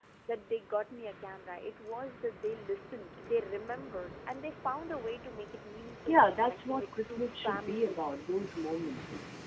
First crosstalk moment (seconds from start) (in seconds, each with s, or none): 6.1 s